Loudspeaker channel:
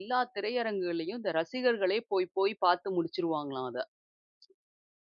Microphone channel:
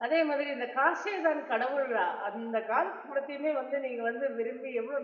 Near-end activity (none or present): present